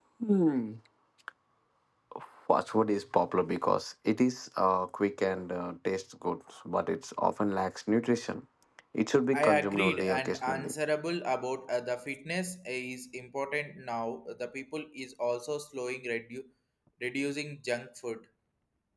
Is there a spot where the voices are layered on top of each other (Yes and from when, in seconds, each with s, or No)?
Yes, from 9.3 s